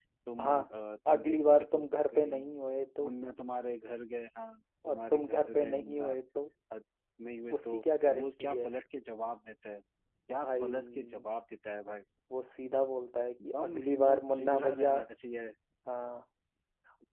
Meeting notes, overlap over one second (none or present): present